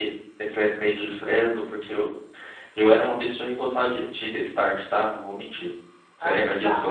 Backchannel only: No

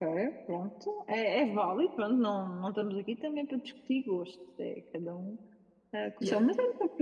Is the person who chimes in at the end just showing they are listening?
Yes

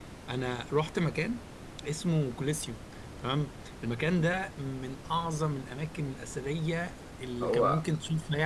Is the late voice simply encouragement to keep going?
Yes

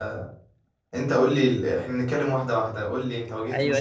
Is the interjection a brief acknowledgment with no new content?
No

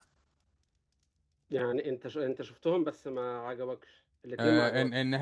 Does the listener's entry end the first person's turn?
Yes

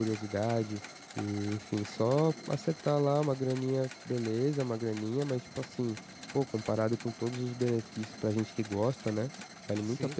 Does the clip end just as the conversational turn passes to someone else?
Yes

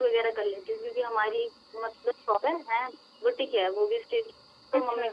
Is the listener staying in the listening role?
Yes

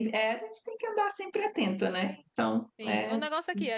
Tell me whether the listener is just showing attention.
No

